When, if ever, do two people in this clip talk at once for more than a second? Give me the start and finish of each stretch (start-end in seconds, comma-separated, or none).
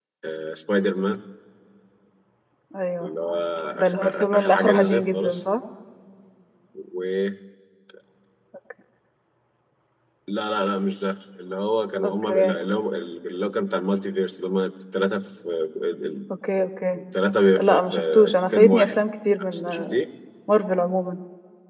3.8-5.4, 17.6-19.0